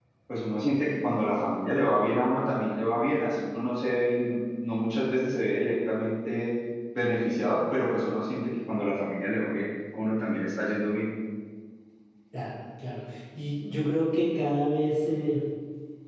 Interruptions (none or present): none